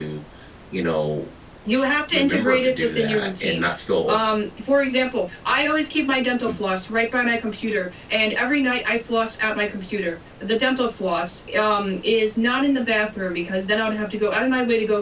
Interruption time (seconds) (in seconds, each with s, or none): 2.1 s